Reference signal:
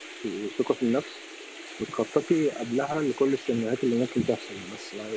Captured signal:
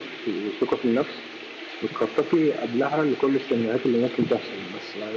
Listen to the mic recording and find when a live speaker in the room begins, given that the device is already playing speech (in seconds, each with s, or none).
none